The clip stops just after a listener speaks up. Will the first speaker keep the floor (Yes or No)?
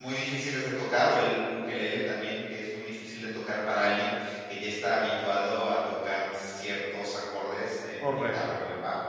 No